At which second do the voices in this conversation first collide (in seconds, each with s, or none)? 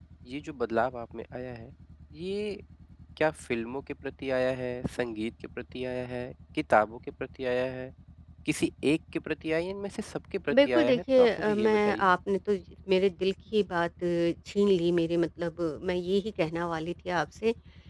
10.5 s